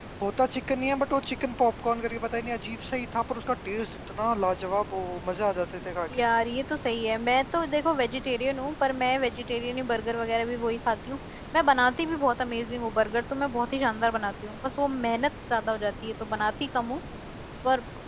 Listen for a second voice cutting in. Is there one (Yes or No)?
No